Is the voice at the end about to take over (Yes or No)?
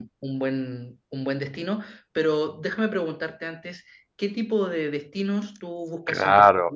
Yes